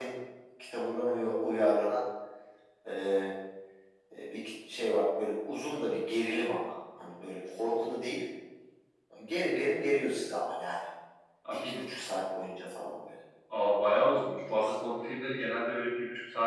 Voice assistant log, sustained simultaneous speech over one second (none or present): none